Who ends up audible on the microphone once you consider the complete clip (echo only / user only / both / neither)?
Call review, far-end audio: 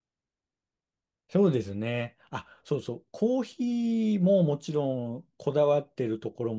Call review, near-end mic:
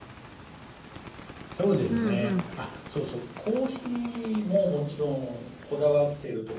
both